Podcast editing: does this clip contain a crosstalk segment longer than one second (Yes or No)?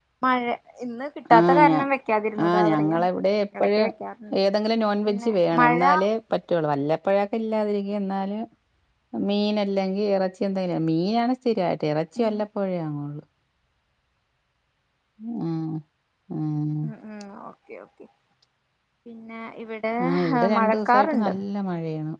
Yes